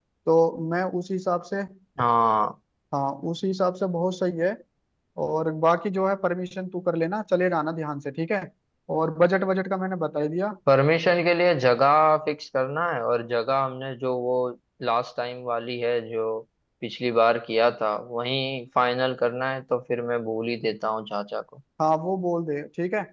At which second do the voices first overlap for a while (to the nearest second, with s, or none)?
none